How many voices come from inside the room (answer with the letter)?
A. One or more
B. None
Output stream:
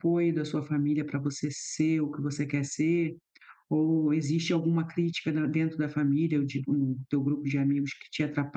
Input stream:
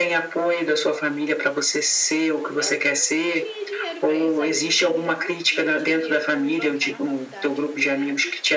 A